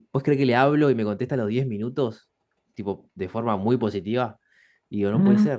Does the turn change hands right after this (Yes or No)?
No